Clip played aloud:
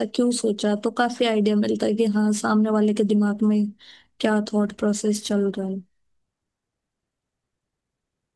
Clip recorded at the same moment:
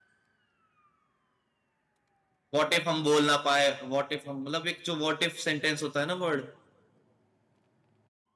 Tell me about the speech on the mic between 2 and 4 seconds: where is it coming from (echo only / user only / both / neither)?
user only